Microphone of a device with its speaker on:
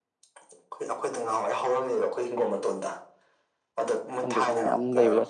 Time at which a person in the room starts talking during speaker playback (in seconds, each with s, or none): 4.2 s